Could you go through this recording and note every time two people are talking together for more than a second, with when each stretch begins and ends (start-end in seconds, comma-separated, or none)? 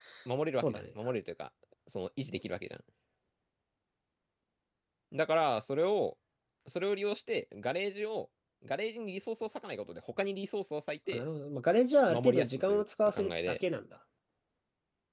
12.1-13.6